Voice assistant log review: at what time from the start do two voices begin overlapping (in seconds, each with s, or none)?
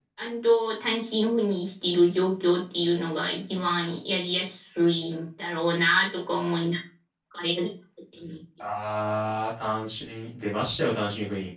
none